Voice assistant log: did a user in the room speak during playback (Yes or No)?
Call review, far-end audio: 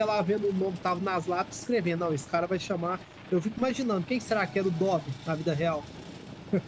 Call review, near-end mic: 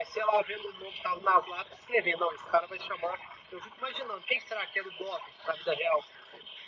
No